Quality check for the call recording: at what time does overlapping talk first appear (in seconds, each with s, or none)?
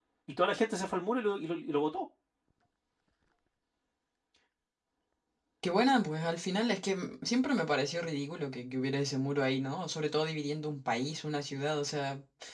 none